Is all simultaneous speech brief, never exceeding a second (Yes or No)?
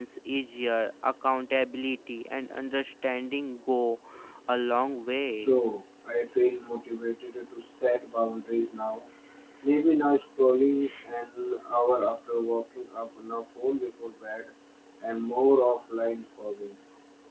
Yes